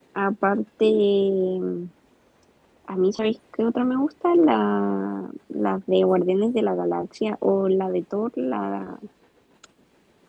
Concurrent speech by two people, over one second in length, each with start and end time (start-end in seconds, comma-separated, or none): none